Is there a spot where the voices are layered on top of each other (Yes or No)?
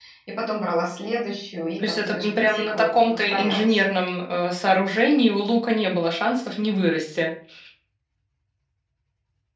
Yes